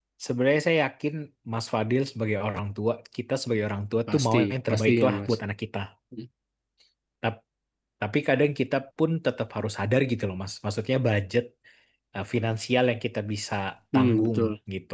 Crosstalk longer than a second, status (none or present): present